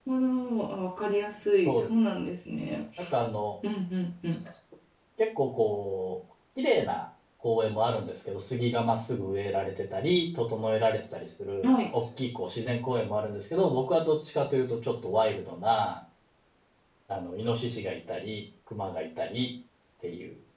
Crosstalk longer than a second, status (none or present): none